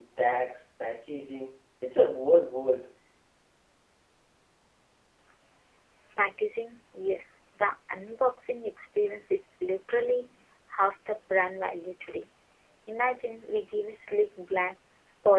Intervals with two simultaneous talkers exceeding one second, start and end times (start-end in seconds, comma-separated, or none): none